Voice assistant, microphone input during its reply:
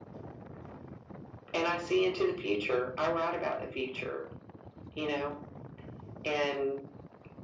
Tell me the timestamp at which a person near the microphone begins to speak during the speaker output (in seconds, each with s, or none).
none